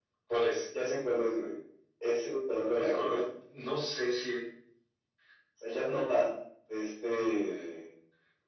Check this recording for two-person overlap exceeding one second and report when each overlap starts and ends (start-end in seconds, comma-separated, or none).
none